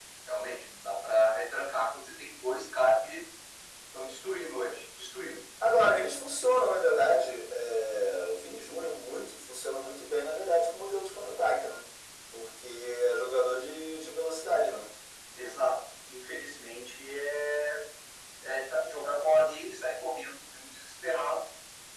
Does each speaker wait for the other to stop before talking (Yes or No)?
Yes